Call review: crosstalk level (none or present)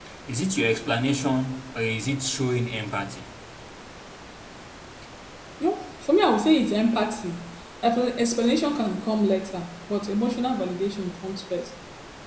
none